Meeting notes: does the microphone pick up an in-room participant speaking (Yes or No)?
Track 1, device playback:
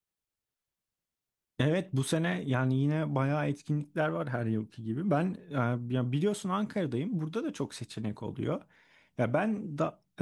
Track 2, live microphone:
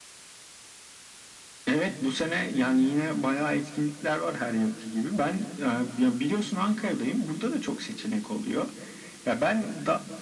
No